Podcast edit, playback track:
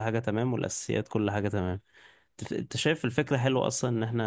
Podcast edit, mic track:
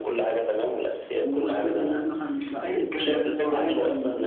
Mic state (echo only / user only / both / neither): both